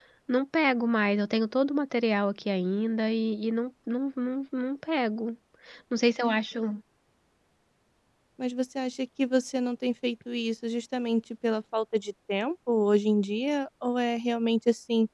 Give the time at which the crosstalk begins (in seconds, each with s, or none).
none